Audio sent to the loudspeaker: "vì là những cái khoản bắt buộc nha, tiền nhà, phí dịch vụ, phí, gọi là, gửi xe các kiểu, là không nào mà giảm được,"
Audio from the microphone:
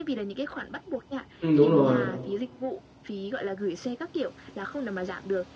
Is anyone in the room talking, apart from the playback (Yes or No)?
Yes